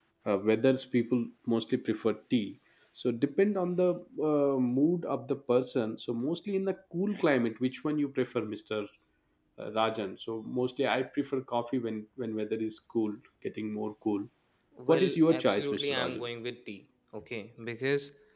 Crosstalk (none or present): present